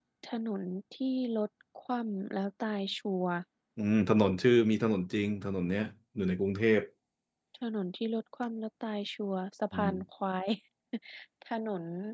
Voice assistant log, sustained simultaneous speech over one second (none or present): none